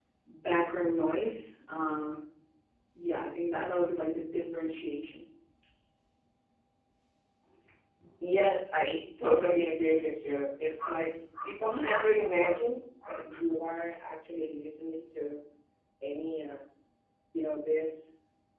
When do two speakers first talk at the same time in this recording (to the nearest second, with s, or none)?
none